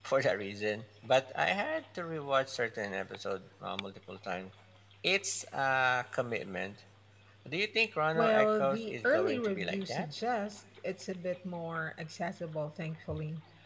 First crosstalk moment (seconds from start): 8.2 s

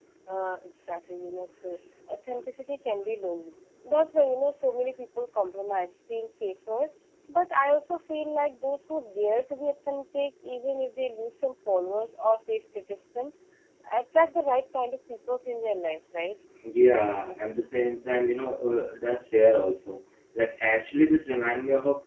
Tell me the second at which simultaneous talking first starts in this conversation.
none

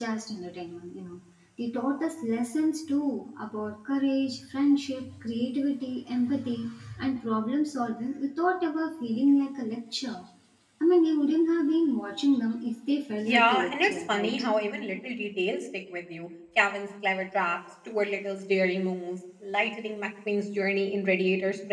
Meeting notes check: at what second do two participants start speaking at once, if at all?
13.2 s

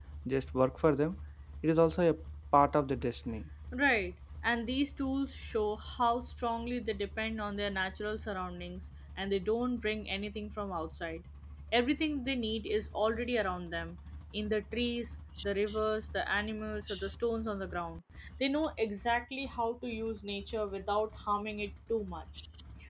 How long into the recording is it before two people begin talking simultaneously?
none

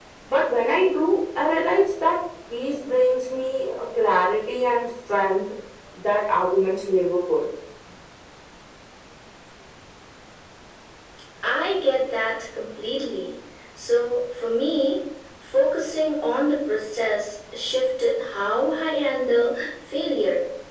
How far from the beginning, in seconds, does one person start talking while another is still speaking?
none

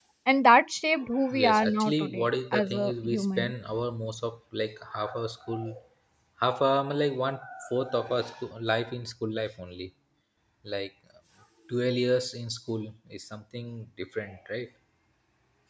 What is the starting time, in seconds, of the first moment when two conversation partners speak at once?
1.4 s

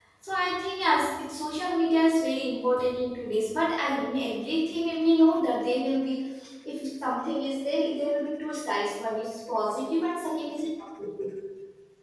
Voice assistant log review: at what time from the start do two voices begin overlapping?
none

